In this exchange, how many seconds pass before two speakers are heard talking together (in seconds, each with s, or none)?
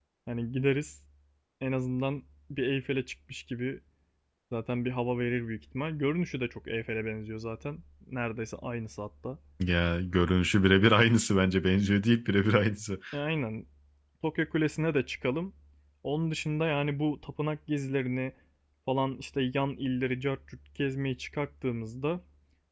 none